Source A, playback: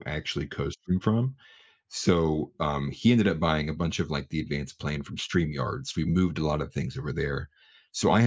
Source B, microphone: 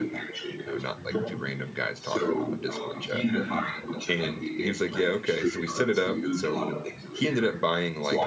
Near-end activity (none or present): present